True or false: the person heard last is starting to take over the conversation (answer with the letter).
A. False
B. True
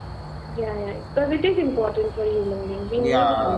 B